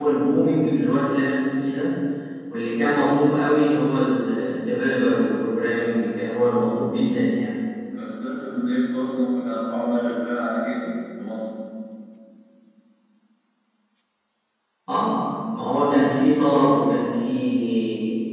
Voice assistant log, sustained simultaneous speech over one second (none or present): none